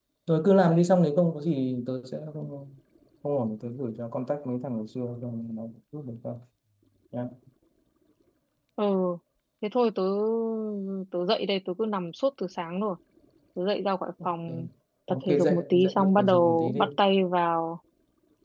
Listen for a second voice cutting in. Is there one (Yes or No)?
Yes